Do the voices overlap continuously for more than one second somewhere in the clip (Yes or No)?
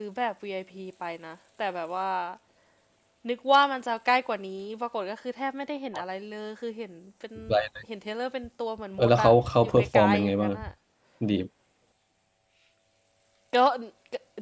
Yes